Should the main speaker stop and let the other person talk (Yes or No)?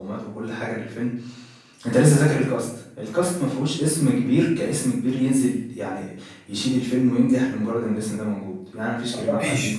No